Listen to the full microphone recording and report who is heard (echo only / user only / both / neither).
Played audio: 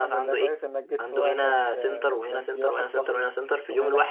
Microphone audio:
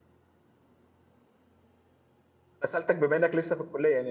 user only